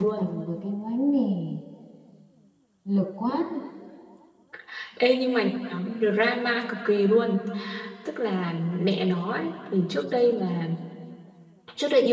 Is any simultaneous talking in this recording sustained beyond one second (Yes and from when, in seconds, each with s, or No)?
No